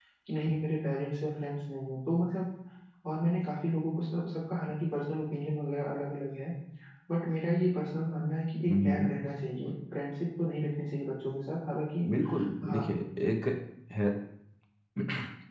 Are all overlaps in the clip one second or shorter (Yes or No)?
Yes